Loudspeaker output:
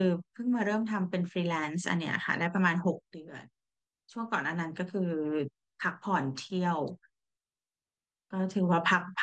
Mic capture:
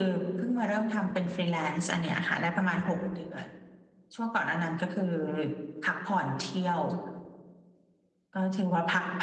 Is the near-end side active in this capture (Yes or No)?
No